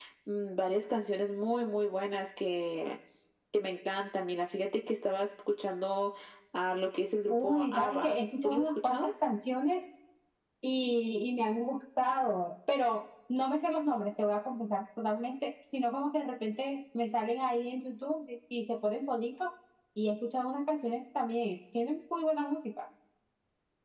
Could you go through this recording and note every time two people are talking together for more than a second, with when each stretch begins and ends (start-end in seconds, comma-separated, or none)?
7.3-9.1